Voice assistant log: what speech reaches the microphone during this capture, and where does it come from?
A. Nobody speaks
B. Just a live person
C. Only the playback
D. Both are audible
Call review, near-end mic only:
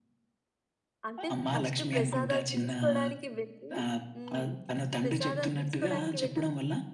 D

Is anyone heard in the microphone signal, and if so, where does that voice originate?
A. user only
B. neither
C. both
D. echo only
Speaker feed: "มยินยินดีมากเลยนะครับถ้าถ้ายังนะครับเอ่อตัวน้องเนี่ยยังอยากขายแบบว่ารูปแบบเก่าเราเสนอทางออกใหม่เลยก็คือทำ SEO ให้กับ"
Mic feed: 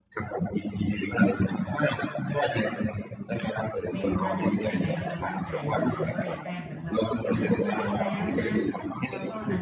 C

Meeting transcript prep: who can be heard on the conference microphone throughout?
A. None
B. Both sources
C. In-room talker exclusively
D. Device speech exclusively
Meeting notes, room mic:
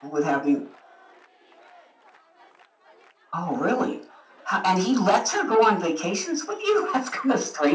D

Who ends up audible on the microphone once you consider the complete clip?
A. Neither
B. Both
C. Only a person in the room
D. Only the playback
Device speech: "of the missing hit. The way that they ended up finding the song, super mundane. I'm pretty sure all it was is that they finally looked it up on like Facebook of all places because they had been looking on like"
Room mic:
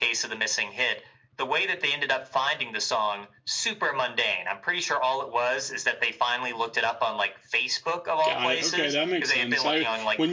B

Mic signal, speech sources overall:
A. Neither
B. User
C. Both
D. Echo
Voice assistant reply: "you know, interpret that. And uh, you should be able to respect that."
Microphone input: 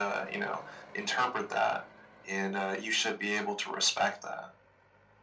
D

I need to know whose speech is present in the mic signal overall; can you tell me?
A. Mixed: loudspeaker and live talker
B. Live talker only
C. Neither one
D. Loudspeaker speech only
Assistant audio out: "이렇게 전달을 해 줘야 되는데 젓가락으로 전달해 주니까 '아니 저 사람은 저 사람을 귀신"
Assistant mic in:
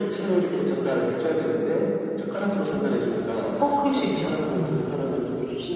A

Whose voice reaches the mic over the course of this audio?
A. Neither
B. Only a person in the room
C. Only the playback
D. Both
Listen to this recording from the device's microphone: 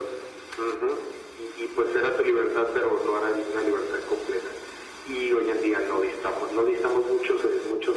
C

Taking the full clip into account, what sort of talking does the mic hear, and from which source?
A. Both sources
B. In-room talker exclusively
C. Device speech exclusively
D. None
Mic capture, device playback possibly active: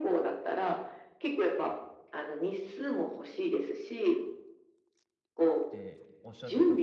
A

